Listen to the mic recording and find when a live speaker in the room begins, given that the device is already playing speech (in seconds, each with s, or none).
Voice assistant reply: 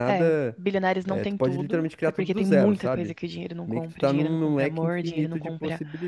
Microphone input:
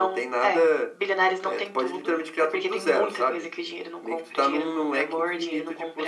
none